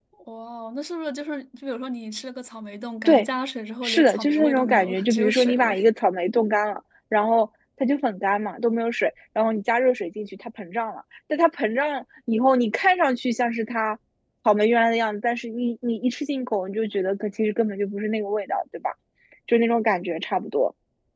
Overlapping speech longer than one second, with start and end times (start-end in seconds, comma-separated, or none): 3.8-5.8